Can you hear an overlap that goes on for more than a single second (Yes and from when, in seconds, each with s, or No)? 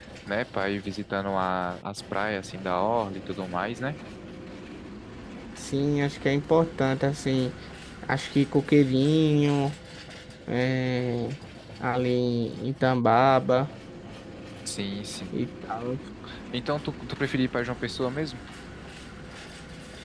No